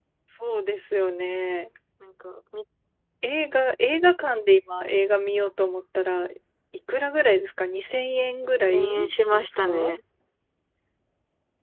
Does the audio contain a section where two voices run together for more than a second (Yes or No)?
Yes